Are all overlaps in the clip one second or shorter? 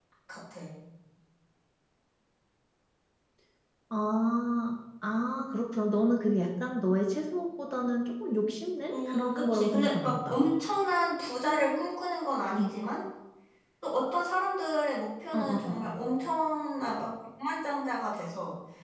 No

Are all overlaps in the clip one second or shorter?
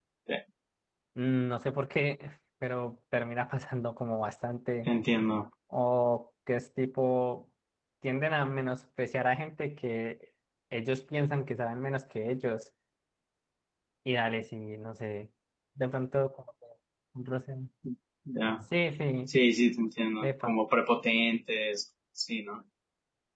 Yes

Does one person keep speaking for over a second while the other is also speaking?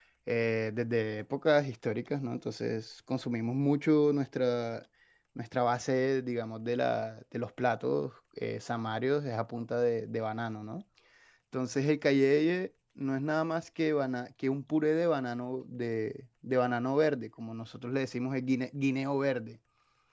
No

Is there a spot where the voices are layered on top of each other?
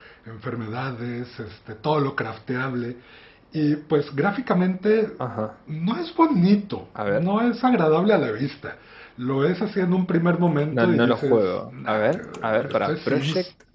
Yes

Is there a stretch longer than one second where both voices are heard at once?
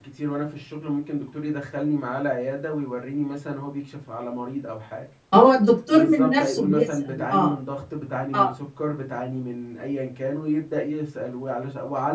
Yes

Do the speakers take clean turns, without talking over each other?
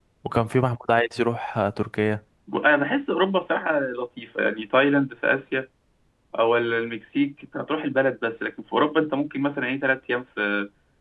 Yes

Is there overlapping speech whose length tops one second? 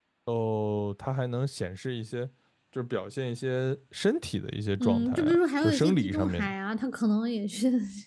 Yes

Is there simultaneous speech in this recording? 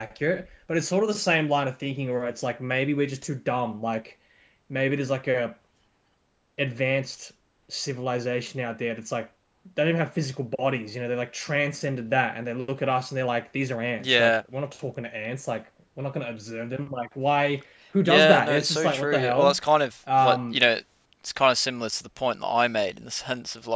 Yes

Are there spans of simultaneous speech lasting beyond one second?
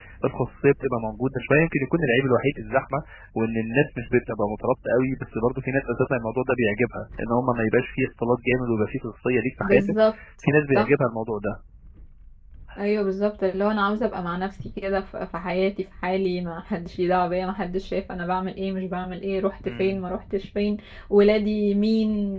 No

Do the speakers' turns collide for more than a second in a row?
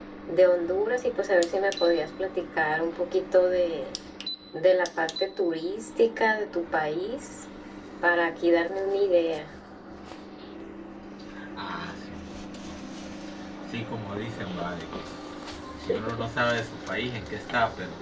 No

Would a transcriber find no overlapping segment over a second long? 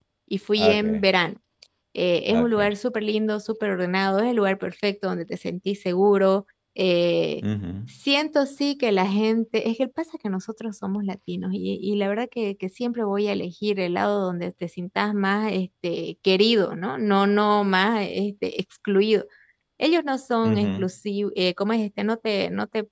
Yes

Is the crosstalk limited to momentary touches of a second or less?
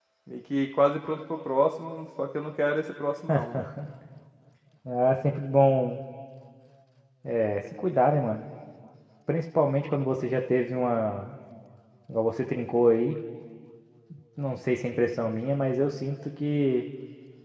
Yes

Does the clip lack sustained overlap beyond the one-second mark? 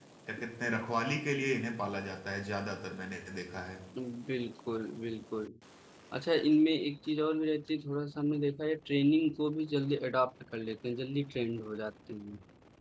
Yes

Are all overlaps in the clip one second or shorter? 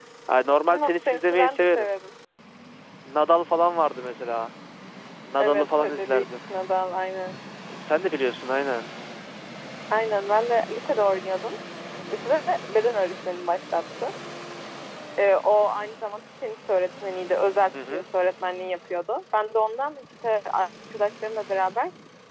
No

